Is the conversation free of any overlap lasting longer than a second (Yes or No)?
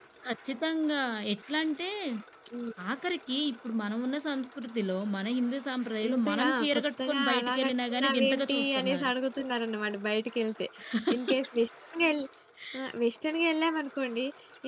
No